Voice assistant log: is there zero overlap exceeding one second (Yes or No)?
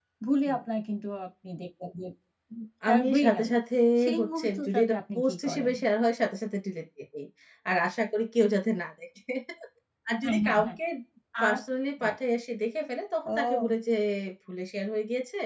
No